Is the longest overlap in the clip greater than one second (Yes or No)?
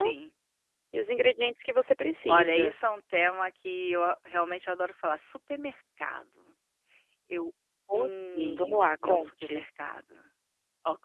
Yes